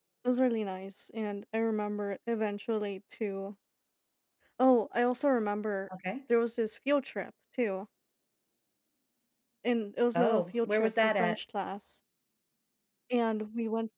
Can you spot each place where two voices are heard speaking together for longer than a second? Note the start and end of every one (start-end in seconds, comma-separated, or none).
10.2-11.4